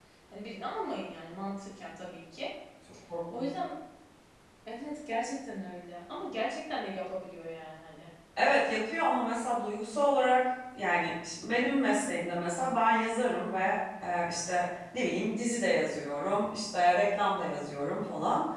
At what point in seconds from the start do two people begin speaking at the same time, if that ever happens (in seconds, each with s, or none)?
none